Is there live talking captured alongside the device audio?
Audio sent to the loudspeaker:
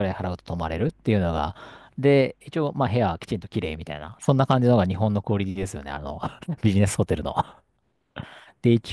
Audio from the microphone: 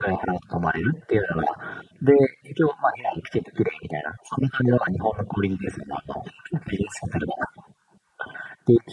No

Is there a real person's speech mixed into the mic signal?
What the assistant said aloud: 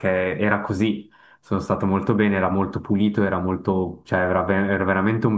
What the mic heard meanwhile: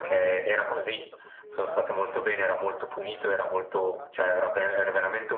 Yes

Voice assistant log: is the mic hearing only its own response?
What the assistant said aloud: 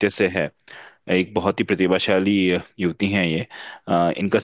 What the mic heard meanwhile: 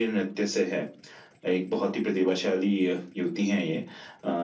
Yes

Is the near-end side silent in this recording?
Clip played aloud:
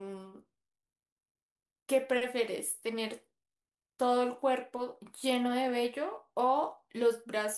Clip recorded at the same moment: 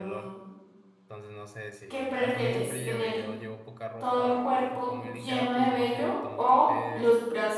No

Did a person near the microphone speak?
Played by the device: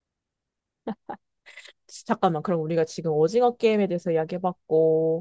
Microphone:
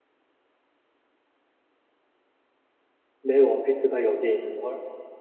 Yes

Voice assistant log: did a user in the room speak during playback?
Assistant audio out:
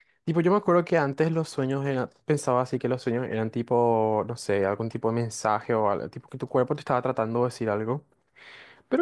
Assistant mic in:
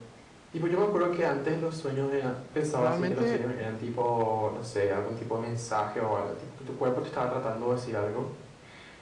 Yes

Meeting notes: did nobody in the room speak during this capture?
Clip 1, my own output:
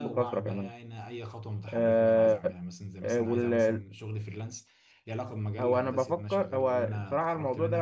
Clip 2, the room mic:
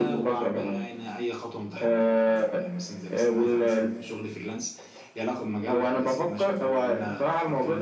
Yes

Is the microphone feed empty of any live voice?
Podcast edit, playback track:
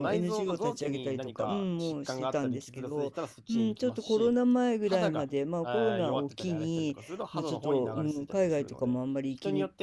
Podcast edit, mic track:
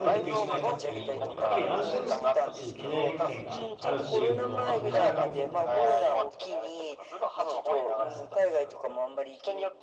No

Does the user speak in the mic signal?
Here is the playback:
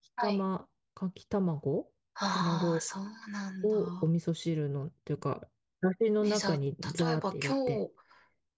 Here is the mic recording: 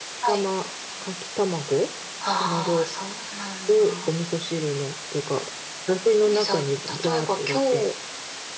No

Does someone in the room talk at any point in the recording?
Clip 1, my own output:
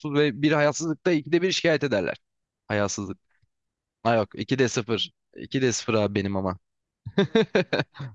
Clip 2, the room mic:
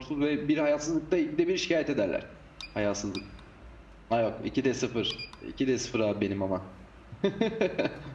No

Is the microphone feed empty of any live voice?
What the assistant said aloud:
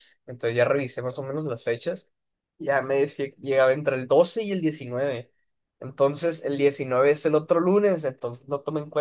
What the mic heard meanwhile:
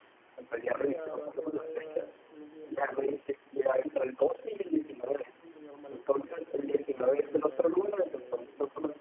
No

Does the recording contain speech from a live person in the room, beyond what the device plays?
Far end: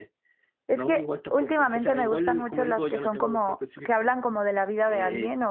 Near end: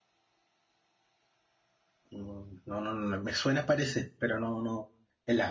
Yes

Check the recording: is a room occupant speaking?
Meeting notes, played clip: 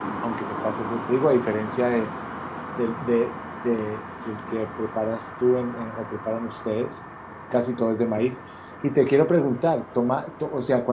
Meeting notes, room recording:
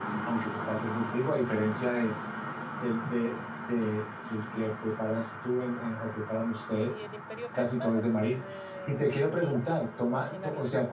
Yes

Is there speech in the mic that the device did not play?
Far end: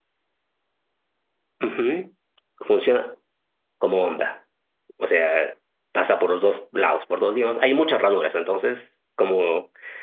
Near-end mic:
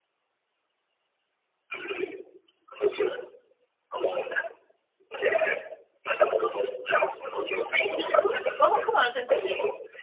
Yes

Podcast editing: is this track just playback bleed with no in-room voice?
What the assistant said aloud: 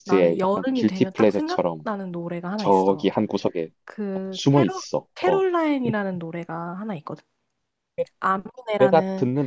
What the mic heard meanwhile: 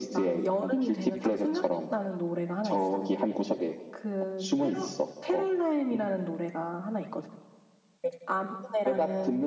Yes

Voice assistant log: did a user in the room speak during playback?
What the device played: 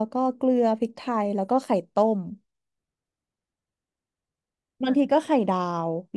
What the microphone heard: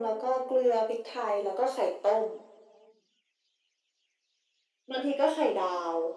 No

